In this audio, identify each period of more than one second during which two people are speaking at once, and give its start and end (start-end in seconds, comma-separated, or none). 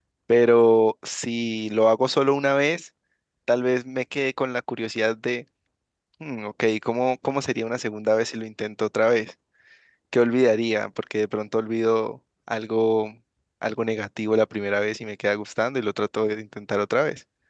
none